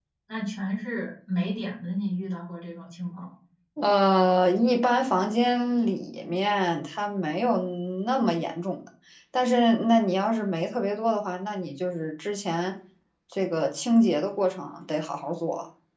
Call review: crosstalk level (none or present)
none